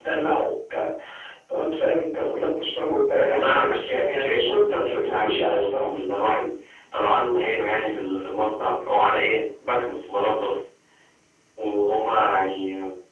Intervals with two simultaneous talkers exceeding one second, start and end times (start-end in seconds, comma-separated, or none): 3.3-5.9